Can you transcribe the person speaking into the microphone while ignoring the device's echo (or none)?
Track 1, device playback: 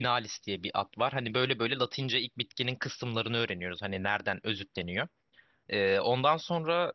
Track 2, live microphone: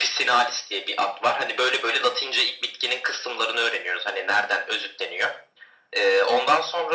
none